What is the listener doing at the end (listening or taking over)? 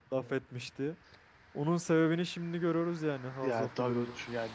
taking over